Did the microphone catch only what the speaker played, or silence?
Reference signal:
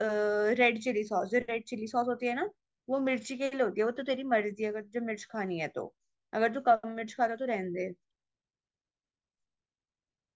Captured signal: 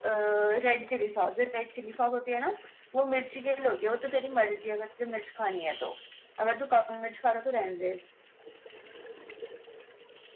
Yes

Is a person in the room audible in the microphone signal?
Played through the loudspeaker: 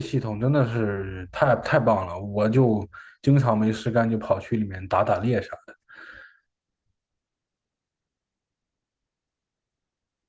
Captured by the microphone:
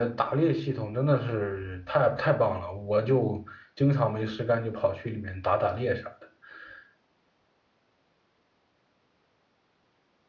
No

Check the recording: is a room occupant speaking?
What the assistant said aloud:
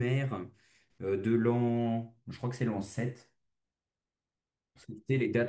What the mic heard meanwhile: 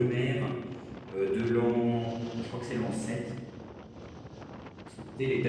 No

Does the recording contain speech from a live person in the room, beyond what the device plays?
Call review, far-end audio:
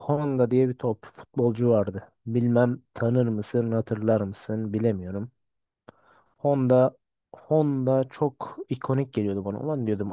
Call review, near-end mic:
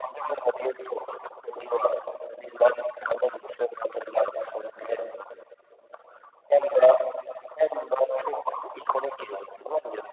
No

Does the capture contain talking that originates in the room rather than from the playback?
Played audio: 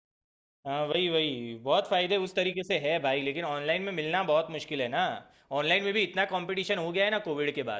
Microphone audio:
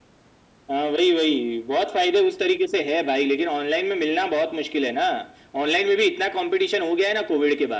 No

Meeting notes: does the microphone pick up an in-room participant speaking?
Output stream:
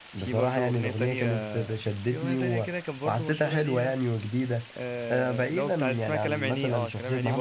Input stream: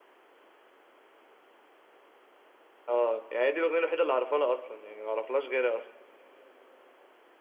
Yes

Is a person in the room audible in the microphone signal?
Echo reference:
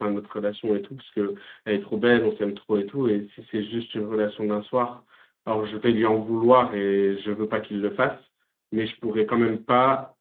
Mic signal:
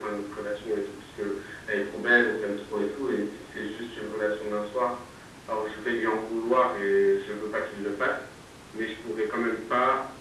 No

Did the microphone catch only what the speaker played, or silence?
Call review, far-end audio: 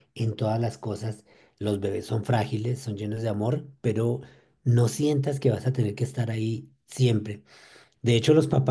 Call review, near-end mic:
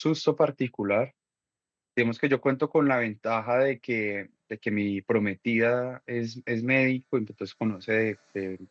No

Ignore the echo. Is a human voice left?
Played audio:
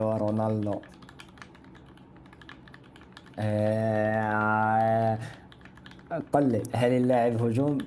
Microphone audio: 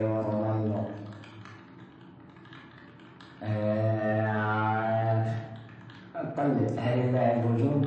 No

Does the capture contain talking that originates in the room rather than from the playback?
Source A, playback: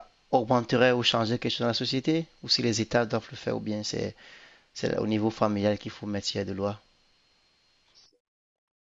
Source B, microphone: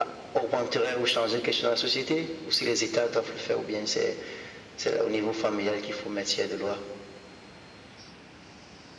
No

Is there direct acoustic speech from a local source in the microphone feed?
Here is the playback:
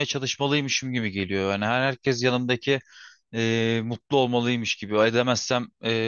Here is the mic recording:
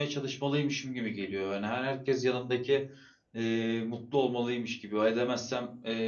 No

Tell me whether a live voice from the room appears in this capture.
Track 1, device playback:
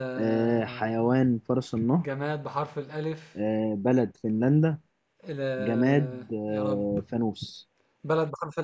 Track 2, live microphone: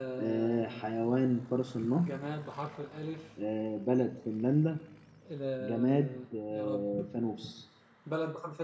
No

